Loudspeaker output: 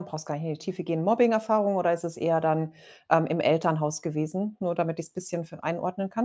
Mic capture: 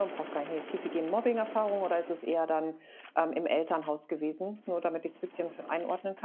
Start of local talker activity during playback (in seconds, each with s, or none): none